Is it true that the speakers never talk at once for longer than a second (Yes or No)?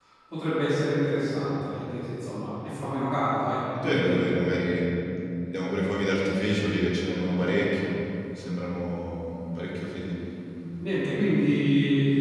Yes